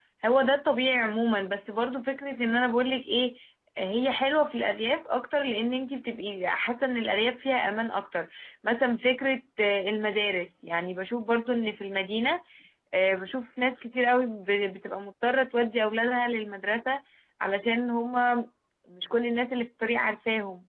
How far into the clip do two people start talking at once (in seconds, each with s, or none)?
none